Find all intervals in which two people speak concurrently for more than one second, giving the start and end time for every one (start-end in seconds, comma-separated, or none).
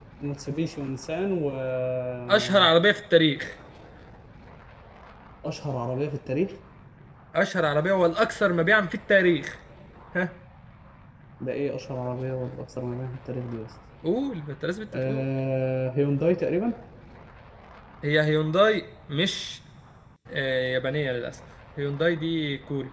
none